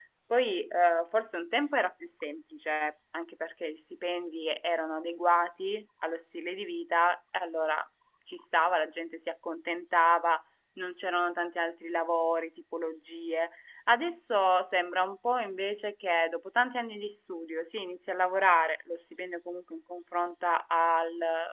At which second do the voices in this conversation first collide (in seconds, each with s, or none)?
none